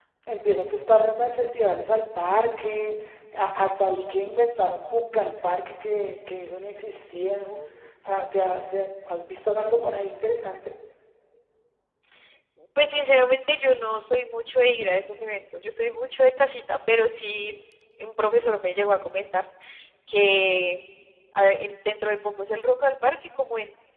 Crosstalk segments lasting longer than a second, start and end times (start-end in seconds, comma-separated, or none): none